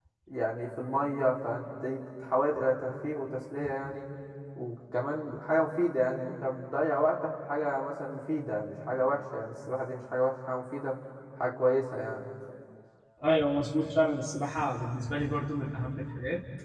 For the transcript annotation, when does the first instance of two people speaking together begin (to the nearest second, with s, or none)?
none